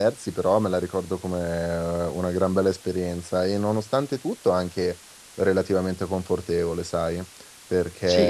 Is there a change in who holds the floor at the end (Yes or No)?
No